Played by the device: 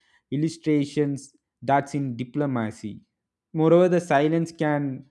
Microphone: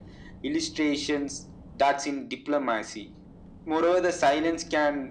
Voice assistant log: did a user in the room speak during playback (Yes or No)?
No